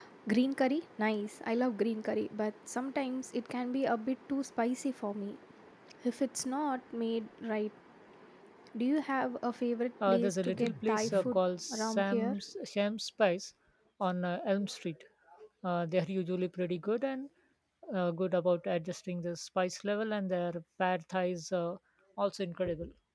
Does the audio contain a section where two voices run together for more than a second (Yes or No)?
Yes